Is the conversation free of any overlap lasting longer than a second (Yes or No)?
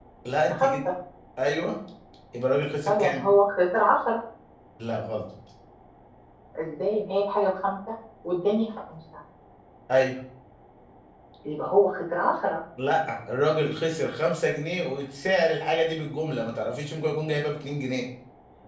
Yes